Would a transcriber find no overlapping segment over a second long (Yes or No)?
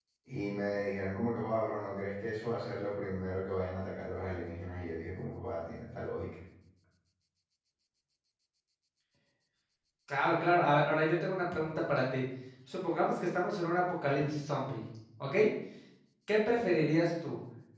Yes